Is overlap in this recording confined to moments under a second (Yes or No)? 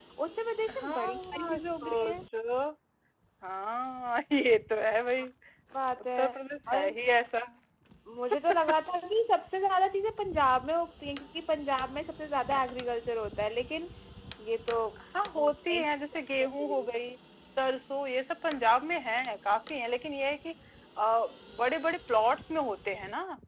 No